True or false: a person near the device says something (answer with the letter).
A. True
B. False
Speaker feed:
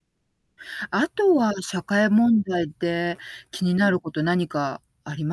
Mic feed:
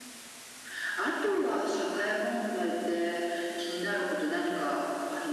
B